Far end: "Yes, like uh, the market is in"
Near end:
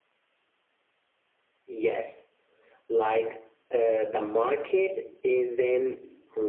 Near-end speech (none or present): none